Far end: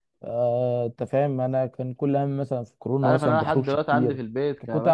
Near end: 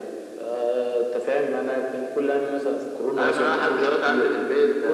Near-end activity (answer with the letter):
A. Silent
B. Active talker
A